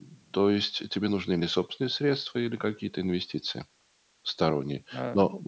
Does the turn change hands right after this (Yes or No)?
No